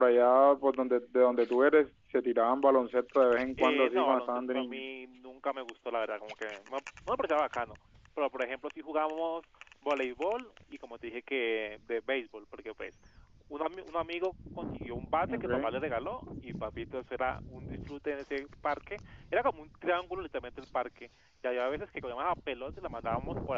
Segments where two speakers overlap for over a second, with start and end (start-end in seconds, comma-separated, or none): 3.6-4.8